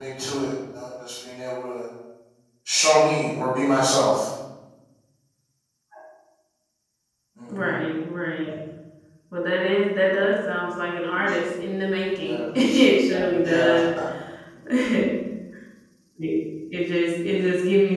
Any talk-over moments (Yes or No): Yes